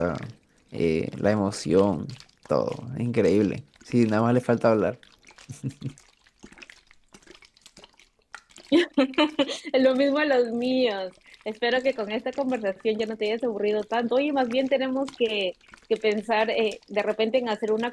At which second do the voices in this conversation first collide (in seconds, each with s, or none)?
none